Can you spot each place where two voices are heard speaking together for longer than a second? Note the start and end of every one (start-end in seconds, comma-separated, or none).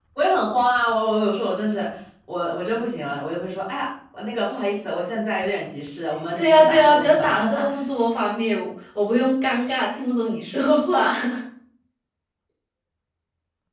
6.4-7.6